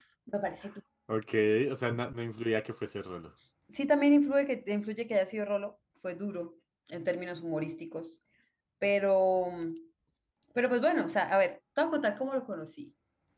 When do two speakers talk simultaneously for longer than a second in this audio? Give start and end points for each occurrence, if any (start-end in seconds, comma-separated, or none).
none